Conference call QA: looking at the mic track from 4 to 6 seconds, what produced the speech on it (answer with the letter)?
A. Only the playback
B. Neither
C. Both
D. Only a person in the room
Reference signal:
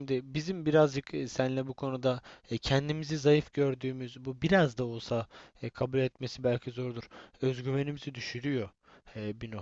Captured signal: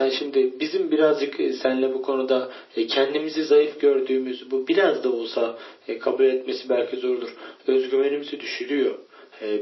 A